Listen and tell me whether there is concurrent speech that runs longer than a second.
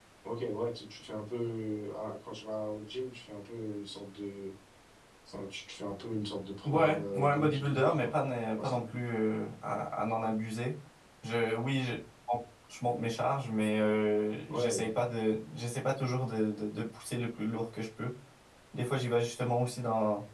Yes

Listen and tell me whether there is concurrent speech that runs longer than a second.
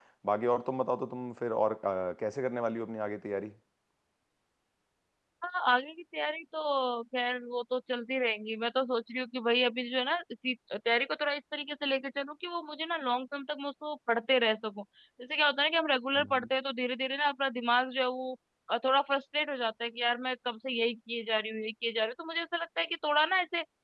No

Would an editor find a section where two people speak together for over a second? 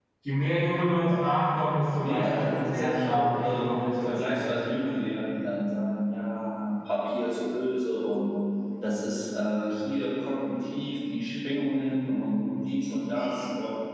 Yes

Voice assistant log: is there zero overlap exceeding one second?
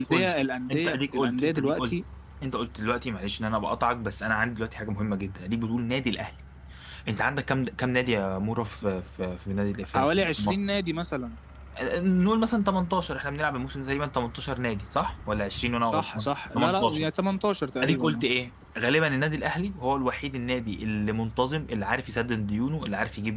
No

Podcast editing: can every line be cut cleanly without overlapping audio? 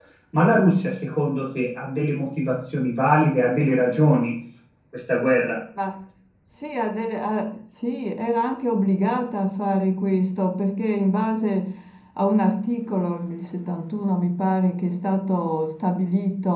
Yes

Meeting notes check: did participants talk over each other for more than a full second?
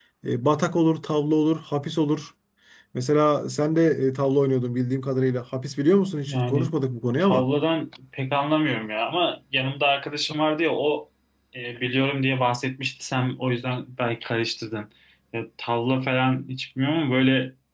No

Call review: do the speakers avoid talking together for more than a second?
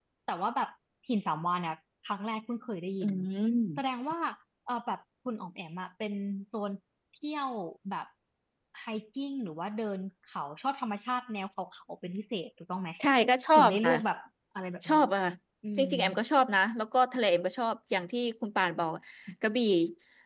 Yes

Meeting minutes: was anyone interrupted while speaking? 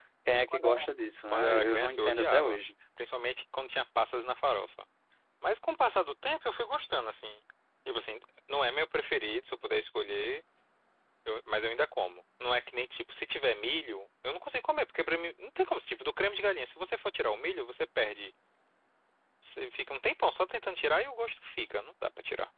Yes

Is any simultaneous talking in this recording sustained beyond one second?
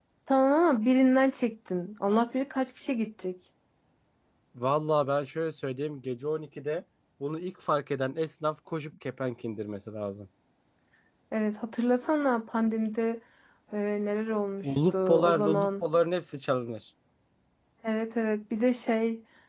Yes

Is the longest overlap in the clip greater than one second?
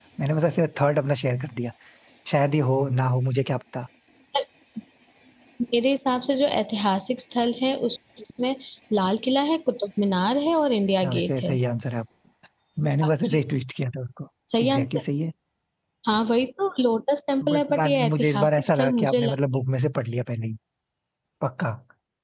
Yes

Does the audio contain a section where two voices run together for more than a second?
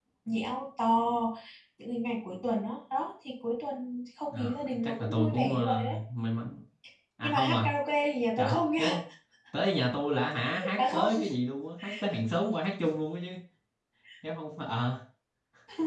Yes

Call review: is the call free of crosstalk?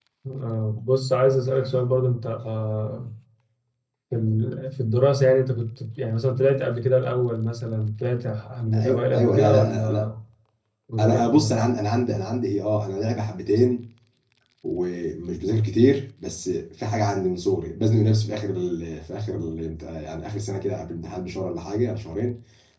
No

